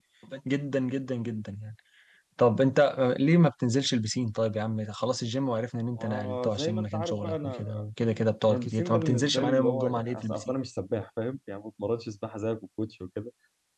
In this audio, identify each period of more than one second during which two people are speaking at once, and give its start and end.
6.0-7.6, 8.5-10.5

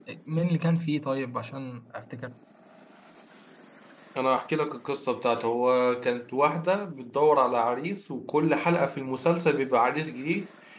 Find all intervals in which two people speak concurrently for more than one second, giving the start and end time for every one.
none

